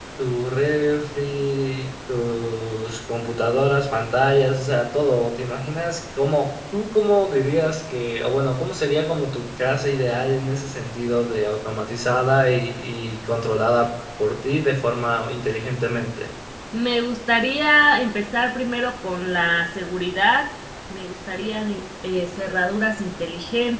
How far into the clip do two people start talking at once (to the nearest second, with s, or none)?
none